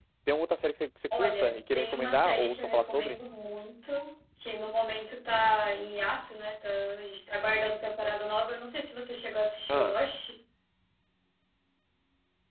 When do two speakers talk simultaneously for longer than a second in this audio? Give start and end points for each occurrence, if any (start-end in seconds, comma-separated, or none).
1.2-3.2